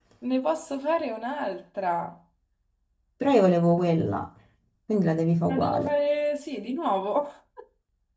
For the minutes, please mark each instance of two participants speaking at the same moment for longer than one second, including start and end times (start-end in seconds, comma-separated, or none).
none